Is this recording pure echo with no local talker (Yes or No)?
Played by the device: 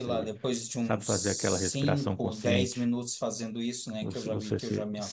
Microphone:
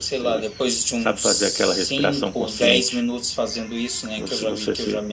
Yes